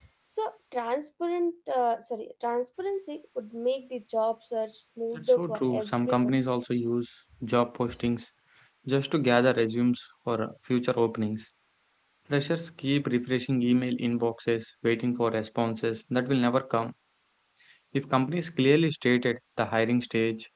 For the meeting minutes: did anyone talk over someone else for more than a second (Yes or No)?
Yes